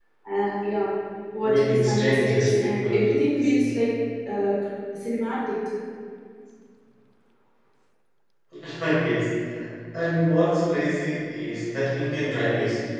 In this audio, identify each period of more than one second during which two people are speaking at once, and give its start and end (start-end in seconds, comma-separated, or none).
1.4-3.5